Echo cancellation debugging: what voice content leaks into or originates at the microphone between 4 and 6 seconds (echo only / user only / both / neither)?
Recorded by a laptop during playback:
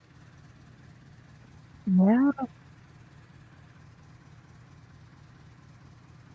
neither